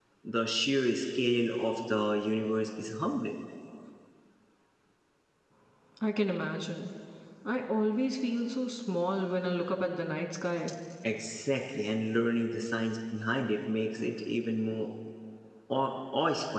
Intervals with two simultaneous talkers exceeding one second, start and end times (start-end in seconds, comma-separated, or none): none